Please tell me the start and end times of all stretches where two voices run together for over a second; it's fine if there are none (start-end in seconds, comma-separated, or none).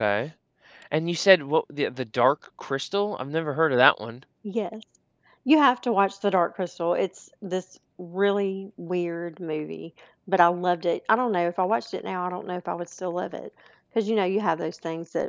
none